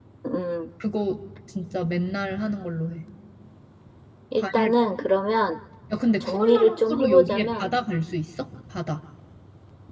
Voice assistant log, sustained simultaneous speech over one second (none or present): present